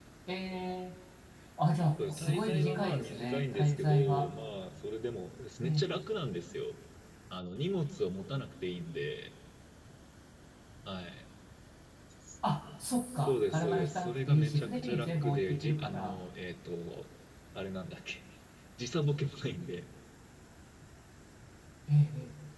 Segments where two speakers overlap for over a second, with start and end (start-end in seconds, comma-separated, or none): 2.1-4.3, 13.3-16.2